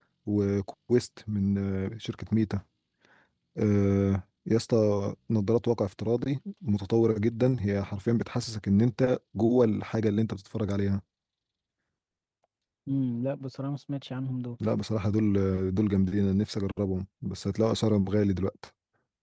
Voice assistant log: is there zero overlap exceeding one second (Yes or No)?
Yes